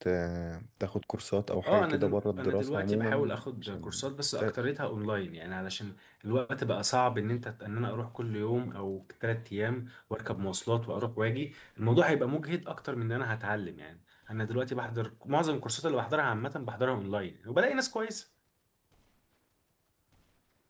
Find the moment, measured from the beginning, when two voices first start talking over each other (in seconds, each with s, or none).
1.7 s